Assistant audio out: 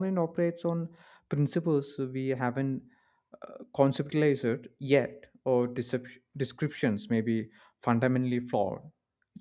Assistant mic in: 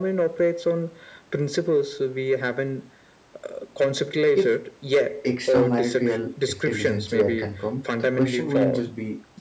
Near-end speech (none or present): present